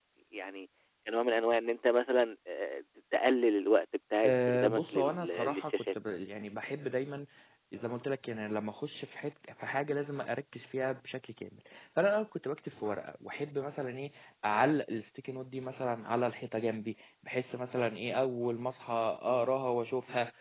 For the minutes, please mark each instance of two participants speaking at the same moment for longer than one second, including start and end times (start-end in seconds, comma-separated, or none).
4.2-6.0